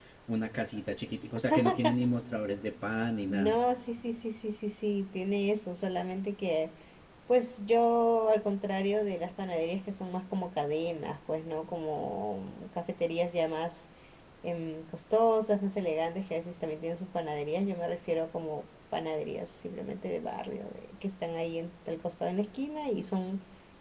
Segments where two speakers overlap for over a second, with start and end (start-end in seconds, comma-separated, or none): none